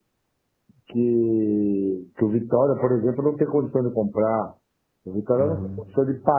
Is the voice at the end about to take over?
No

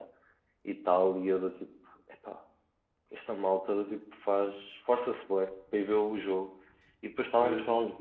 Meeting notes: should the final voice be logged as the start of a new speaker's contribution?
No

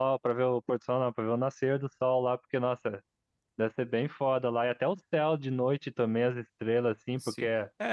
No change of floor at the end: No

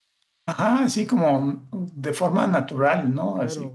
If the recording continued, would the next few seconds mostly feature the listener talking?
Yes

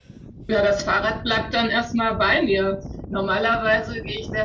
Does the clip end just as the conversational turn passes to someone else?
No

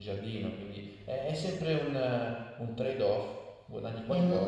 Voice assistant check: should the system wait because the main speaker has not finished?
No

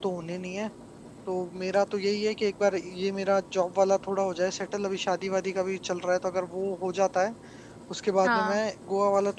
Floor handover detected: No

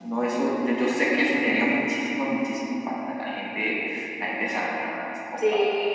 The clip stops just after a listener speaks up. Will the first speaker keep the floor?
No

